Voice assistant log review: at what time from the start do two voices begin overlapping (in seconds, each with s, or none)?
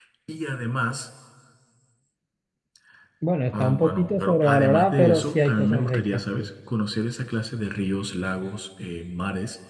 3.6 s